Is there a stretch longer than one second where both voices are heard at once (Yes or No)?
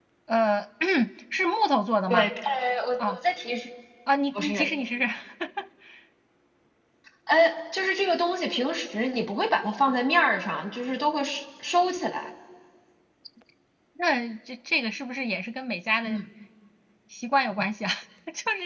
No